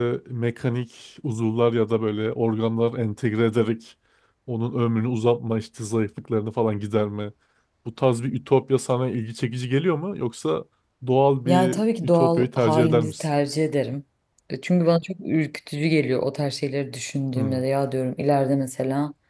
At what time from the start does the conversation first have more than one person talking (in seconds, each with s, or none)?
11.4 s